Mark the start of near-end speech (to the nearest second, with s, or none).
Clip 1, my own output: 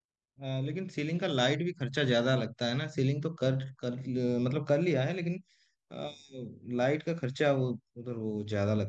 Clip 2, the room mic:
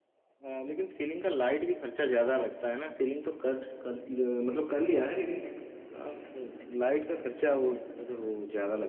none